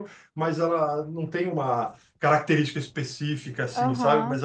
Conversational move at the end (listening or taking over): taking over